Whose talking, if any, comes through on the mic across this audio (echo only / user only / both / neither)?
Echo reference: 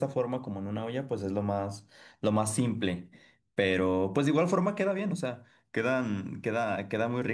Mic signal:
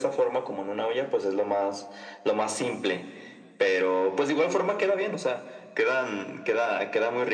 echo only